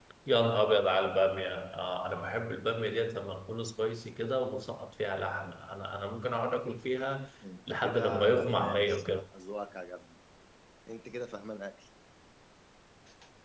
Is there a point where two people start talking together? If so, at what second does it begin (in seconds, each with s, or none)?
7.7 s